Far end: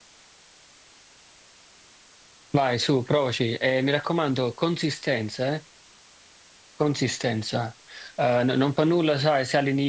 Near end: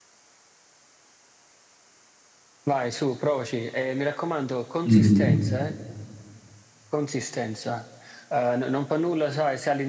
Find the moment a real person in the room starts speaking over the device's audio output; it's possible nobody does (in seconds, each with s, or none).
4.8 s